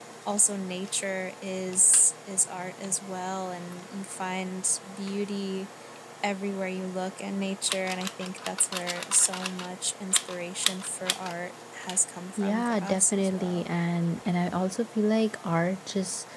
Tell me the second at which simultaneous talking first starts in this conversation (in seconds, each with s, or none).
12.4 s